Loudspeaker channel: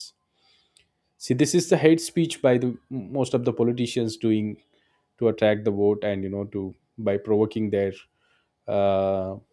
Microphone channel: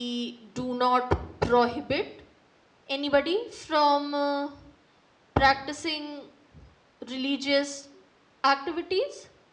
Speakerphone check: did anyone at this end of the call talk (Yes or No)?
Yes